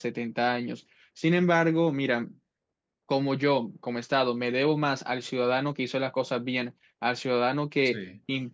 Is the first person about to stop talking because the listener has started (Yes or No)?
No